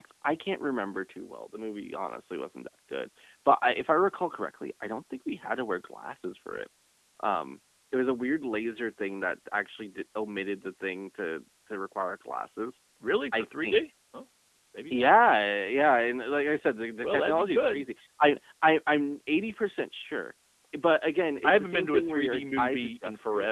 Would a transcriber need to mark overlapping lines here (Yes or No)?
Yes